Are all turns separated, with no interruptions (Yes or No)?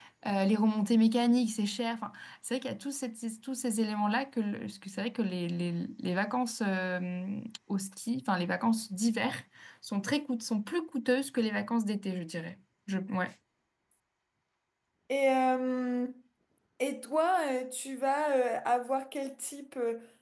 Yes